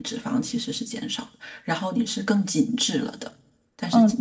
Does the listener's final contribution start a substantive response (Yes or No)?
Yes